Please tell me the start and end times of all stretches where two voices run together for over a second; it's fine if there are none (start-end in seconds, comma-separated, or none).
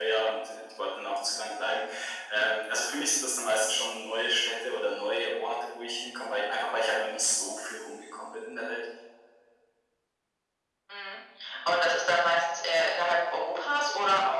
none